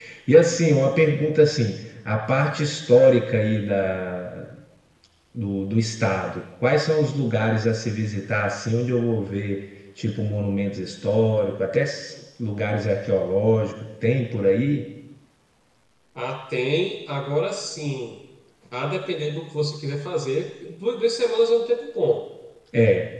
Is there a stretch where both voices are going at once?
No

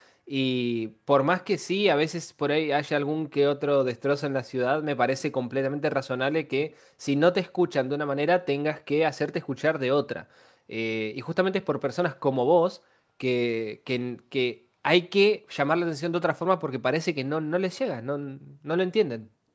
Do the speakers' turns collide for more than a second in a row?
No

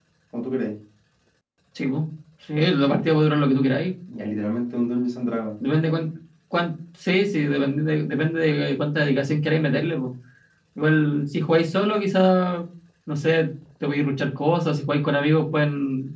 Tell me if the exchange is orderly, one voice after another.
Yes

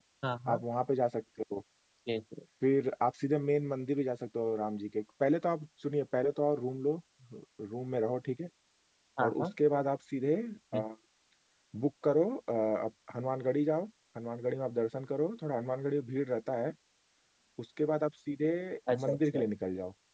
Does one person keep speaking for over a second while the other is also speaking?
No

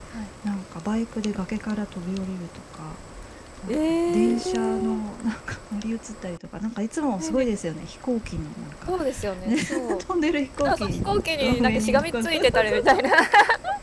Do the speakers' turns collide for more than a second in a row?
Yes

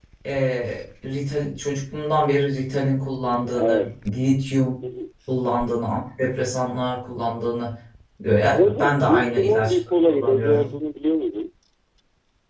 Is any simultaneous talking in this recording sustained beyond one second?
Yes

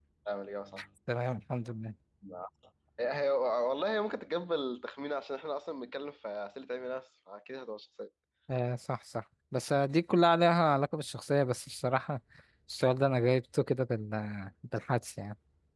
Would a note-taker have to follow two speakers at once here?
No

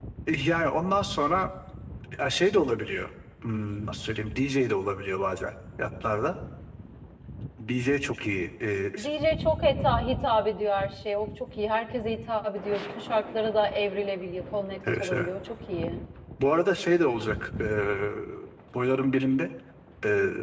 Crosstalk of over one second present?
No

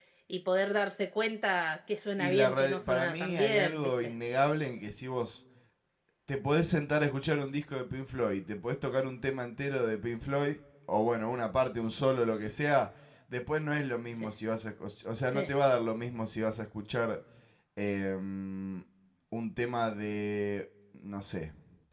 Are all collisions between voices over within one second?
No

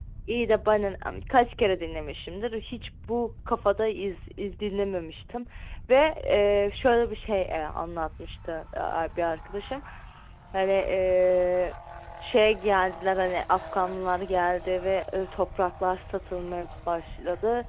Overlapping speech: No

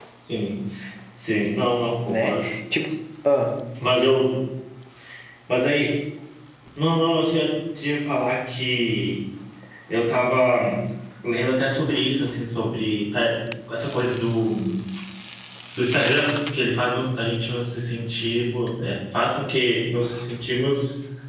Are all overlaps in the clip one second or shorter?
Yes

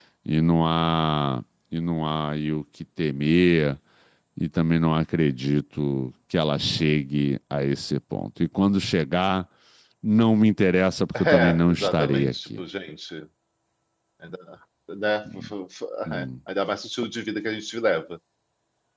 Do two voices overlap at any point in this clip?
Yes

